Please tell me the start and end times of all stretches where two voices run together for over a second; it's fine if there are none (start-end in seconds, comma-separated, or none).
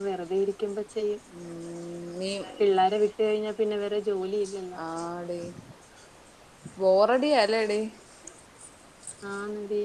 none